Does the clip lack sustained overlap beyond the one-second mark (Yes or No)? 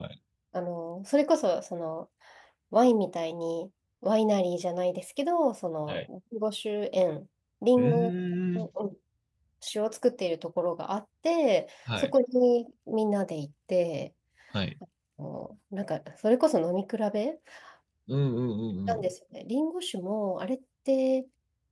Yes